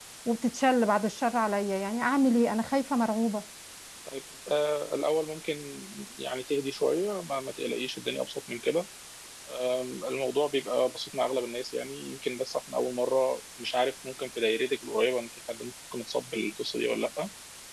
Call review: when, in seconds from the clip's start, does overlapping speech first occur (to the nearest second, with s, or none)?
none